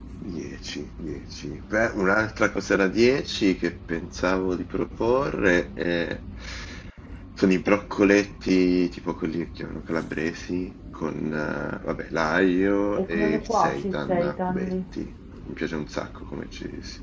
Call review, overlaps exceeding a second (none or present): present